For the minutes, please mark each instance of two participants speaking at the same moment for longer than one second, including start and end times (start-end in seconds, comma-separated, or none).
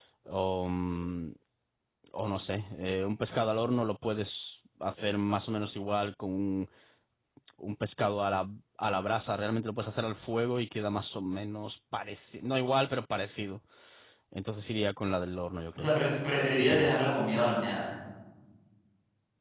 none